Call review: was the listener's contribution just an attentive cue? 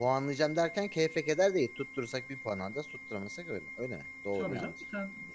No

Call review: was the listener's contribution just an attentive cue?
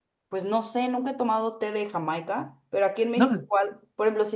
Yes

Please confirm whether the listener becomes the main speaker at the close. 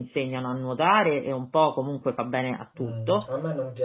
Yes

